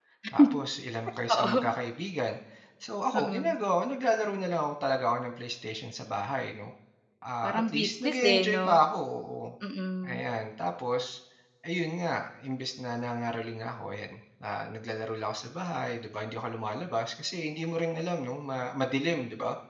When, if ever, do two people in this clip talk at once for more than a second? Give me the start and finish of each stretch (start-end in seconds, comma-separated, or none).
7.4-8.8